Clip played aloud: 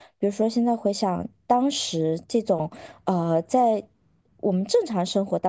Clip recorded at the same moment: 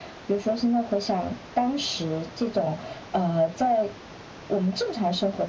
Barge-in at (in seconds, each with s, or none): none